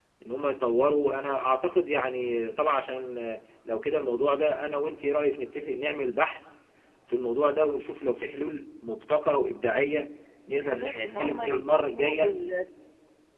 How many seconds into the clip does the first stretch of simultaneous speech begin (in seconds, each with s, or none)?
10.6 s